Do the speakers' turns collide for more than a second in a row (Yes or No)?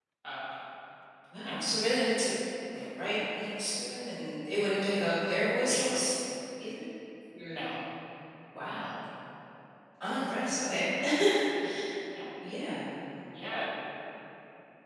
No